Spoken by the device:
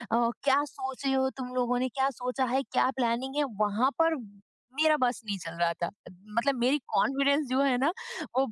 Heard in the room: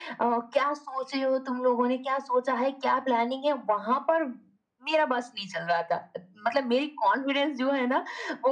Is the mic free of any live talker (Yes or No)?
Yes